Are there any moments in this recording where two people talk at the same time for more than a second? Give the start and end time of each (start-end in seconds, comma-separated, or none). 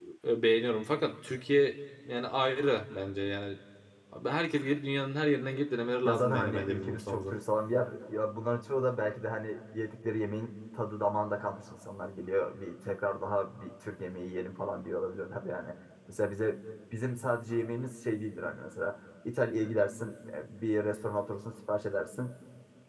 6.0-7.3